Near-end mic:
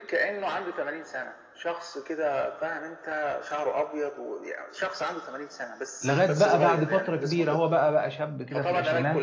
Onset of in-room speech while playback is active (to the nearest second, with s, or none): 6 s